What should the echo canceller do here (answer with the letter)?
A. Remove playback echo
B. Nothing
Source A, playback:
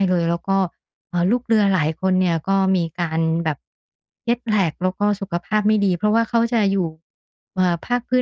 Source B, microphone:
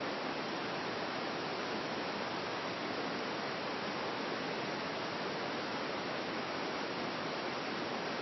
B